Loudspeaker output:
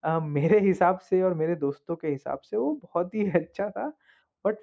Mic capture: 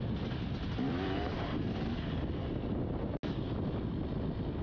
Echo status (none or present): none